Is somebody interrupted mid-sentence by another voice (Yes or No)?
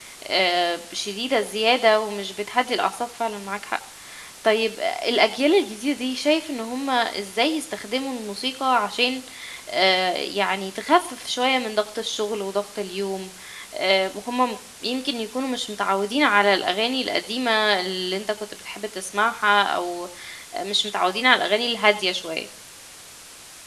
No